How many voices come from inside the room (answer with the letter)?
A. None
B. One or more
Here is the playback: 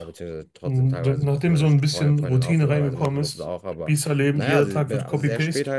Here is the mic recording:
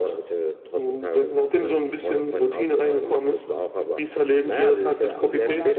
B